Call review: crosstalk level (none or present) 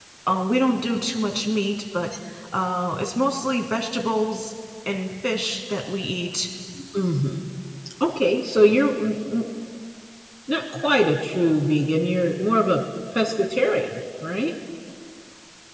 none